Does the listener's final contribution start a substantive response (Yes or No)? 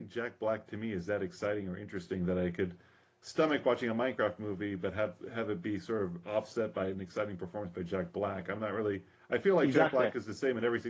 No